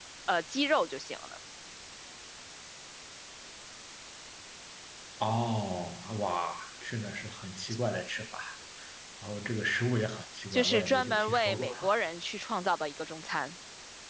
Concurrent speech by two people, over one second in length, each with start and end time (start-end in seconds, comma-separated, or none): 10.5-11.7